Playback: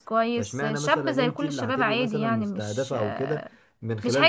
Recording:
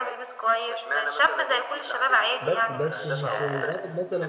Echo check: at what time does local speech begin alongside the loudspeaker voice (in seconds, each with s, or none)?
2.4 s